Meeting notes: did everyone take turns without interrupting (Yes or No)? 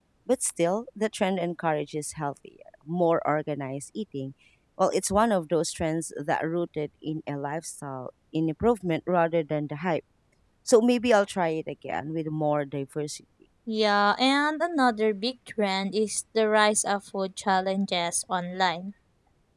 Yes